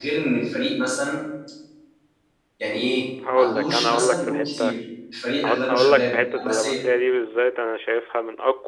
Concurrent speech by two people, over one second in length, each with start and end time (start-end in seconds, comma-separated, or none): 3.4-4.7, 5.4-6.8